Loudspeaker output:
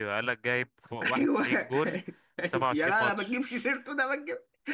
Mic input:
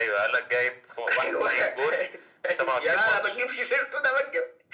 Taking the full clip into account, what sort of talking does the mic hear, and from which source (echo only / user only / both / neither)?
echo only